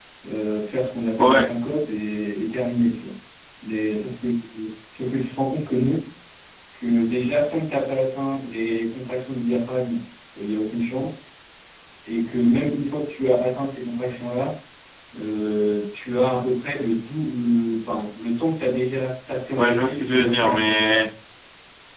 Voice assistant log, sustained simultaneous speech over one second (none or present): present